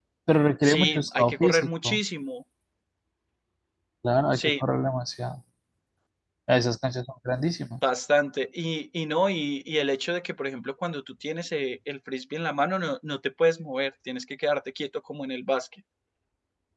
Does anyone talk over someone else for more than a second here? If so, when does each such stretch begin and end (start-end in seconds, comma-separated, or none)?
0.6-2.0